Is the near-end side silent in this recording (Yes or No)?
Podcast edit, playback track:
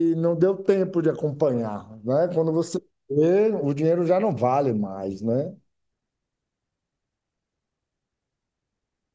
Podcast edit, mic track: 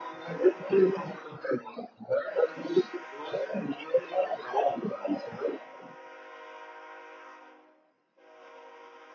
Yes